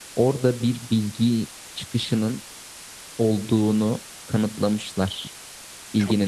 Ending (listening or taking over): listening